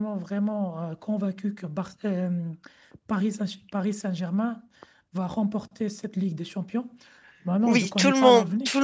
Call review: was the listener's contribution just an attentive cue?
No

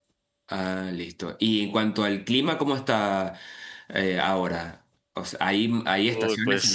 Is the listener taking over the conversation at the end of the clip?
No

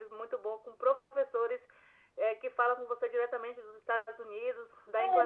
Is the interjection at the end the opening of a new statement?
Yes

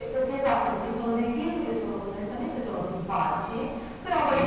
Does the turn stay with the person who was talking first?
Yes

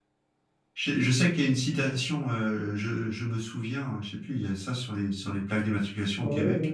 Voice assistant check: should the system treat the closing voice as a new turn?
Yes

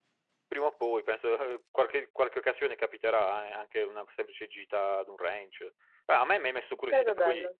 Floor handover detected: No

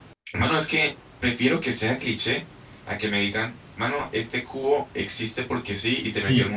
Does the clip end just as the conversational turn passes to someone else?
Yes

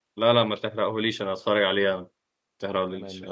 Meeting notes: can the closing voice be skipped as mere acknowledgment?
No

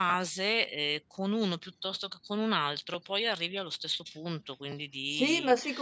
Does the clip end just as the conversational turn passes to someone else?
Yes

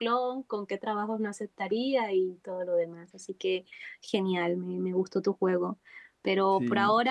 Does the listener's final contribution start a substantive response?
No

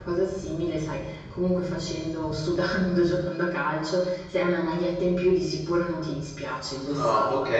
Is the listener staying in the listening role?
No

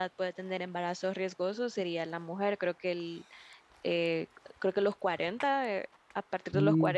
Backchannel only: Yes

